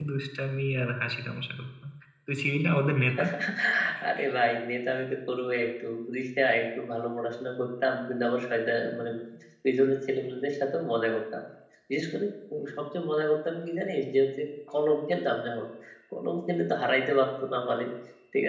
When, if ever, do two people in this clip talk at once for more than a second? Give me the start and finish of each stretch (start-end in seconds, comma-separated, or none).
none